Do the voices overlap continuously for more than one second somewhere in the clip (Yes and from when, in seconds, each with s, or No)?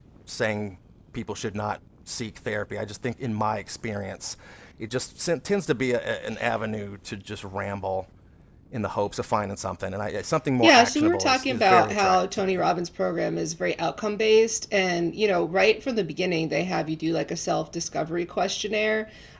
Yes, from 10.6 s